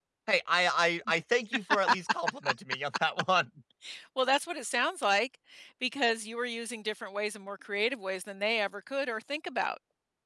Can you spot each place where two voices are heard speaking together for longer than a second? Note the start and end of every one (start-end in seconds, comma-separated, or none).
none